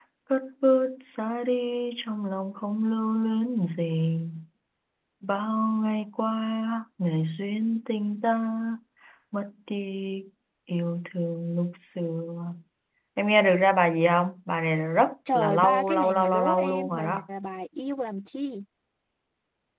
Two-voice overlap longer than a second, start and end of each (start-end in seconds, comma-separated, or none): 15.3-17.2